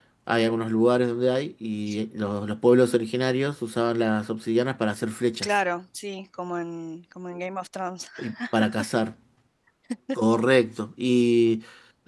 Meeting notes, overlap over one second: none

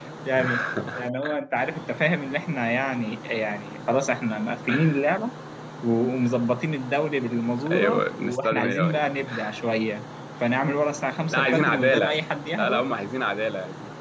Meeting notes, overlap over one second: present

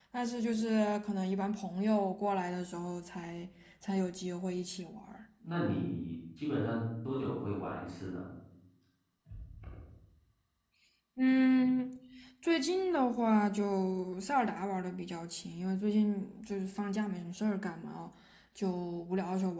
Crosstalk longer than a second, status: none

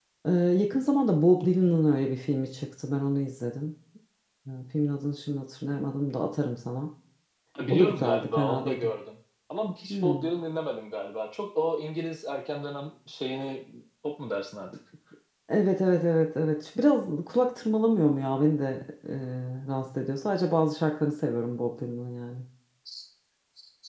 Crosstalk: present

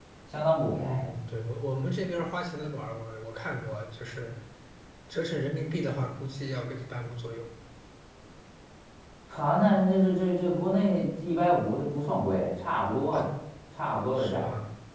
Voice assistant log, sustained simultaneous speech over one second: none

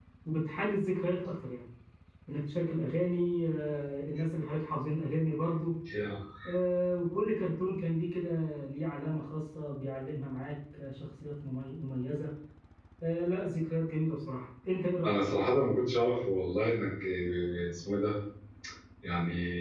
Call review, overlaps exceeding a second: none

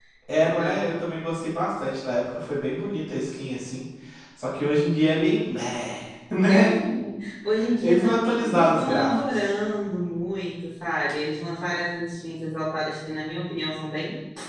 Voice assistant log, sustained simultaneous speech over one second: present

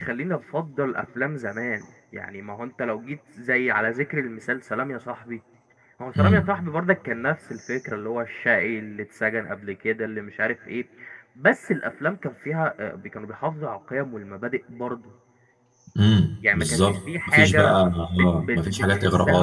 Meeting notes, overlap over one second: present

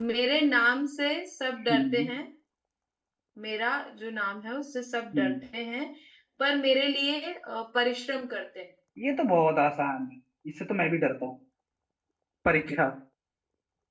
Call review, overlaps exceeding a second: none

